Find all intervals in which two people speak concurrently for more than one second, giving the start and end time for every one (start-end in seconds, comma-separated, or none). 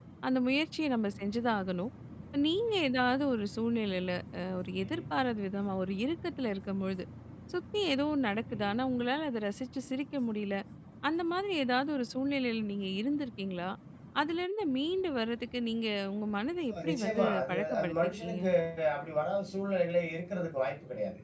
16.7-18.4